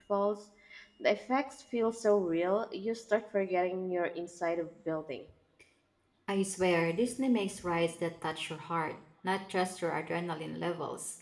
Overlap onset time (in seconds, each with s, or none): none